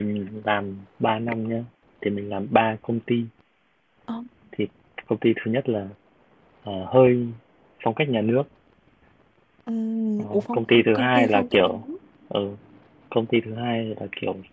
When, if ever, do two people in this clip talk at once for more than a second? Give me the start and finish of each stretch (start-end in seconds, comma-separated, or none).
10.3-11.8